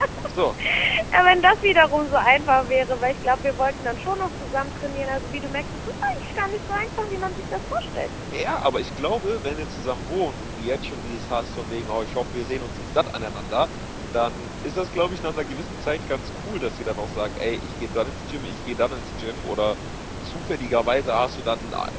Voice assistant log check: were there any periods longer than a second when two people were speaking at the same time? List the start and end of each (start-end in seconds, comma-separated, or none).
none